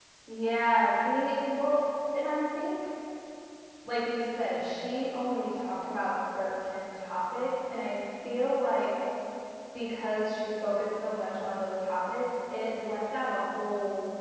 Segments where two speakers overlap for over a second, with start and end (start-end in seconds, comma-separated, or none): none